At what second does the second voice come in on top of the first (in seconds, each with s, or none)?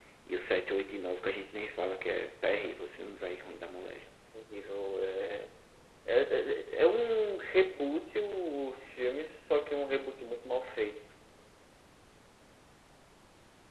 none